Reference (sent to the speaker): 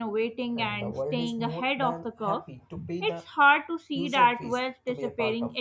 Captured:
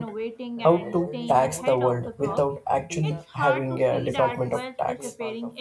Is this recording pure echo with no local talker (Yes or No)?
No